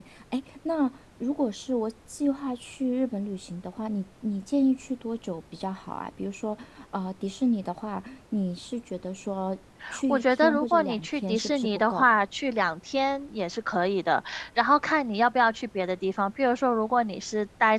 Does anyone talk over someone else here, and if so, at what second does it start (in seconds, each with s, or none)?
10.1 s